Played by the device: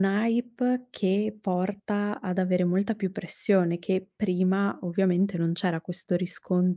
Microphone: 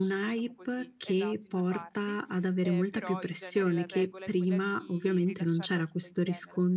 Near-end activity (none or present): present